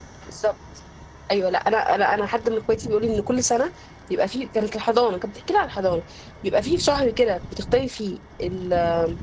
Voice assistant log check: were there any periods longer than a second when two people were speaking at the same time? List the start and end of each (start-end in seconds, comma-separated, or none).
none